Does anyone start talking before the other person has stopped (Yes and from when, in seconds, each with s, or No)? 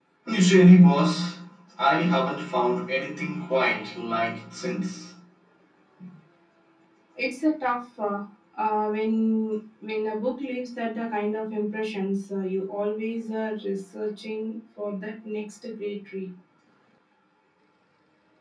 No